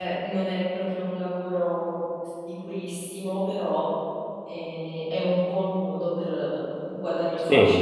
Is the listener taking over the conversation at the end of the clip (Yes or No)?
Yes